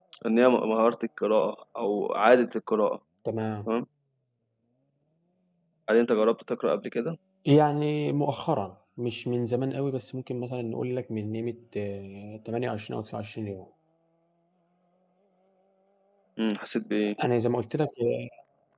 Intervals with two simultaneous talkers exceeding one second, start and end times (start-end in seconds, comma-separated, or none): none